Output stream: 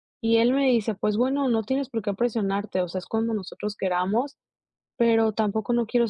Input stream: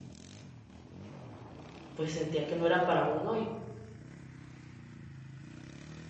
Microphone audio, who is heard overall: user only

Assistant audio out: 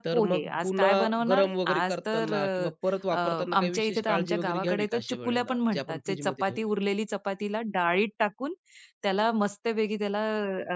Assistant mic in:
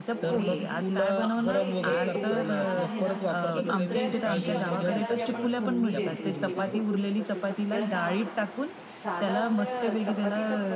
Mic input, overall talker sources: both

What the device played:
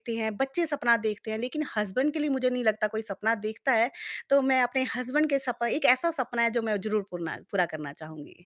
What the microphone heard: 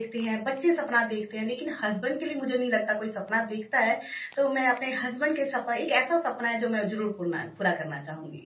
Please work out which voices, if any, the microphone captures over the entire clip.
echo only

